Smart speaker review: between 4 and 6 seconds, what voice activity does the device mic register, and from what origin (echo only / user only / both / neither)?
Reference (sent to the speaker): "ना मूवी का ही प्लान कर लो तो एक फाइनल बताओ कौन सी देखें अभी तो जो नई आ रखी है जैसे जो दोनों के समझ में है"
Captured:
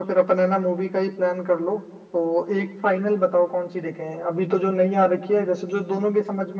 echo only